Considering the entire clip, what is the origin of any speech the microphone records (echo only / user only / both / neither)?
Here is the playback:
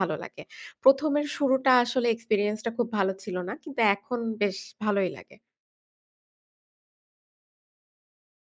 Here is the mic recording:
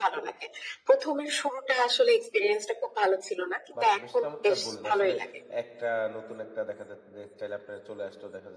both